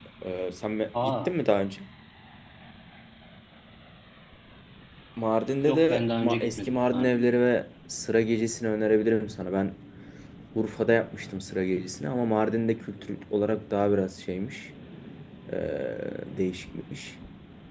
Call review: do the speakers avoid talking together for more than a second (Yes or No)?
No